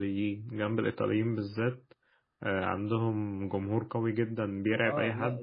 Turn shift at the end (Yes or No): Yes